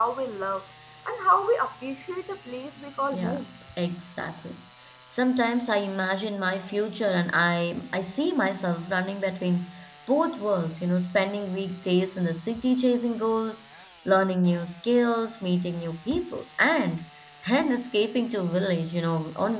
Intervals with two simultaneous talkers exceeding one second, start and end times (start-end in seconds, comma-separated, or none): none